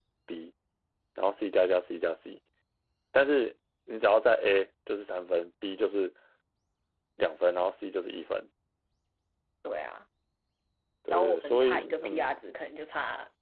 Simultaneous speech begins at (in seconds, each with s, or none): 11.1 s